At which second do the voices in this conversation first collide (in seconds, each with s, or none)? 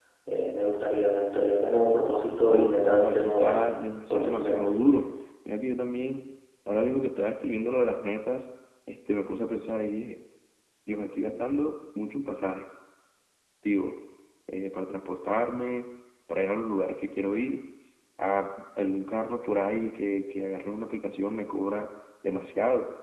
2.5 s